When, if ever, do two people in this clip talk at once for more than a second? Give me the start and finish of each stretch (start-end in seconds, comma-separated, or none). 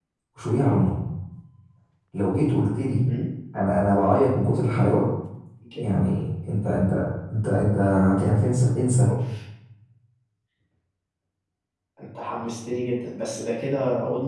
none